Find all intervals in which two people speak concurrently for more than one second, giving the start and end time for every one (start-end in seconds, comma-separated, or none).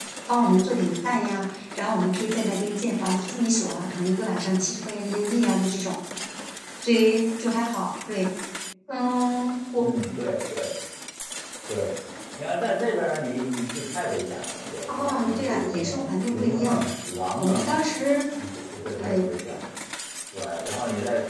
14.9-16.8